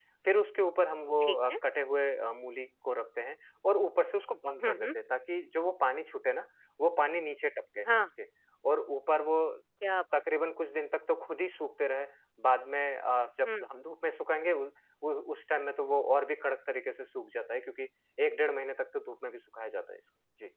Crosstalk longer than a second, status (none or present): none